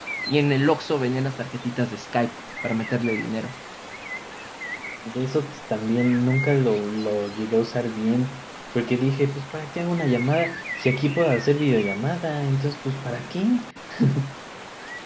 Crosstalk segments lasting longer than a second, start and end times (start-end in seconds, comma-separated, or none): none